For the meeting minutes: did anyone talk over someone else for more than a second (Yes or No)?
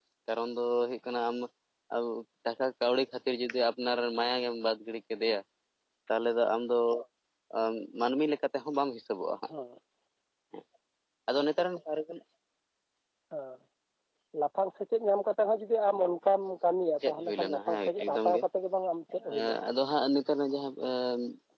Yes